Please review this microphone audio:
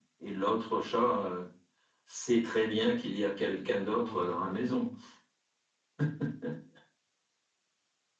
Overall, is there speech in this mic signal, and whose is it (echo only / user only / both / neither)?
both